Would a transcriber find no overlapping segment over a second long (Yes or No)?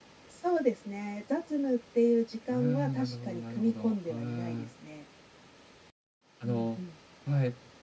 No